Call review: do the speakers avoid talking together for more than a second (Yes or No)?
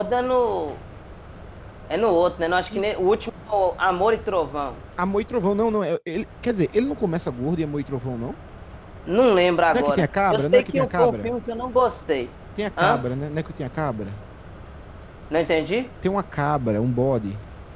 No